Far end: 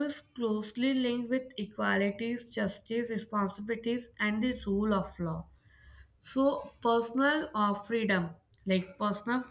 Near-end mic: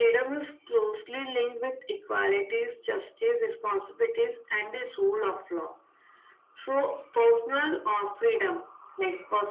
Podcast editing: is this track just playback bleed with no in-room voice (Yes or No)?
Yes